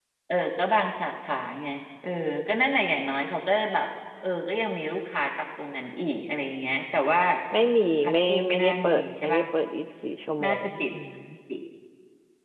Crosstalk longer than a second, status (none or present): present